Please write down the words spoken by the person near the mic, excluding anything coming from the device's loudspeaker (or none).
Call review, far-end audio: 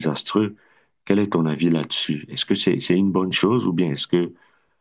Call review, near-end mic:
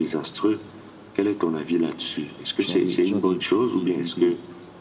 Tu as des, tu as des, des, des, des,